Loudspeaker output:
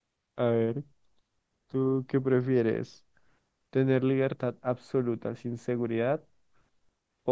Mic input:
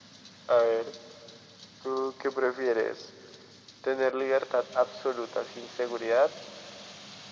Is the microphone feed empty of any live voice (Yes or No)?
Yes